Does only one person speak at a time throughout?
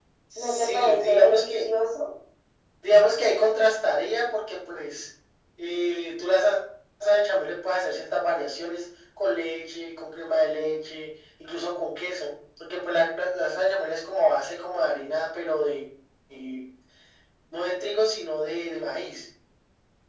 No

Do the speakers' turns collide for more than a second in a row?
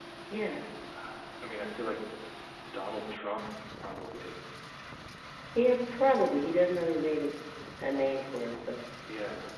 No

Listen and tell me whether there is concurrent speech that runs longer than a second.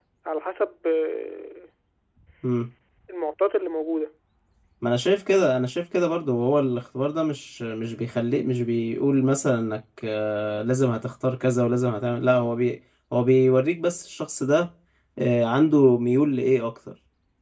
No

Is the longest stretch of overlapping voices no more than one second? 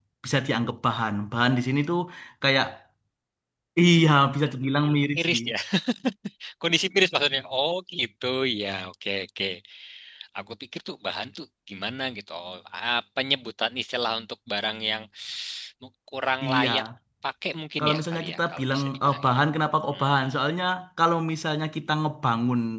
No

